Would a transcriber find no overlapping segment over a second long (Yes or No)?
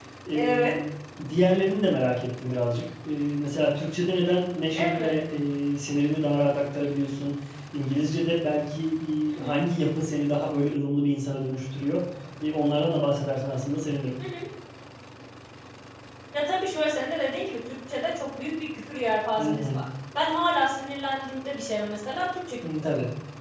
Yes